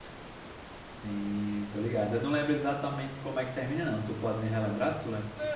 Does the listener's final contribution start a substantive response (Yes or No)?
Yes